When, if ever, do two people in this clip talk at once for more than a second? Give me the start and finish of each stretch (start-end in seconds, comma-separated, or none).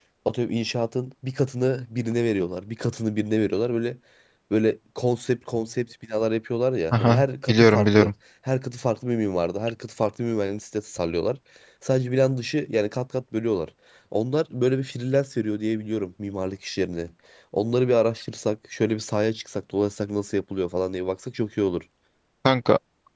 6.9-8.1